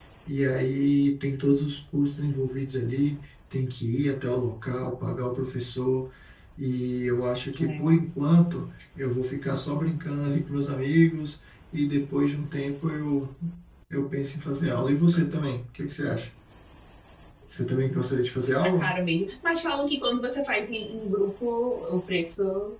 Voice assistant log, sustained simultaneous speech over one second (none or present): none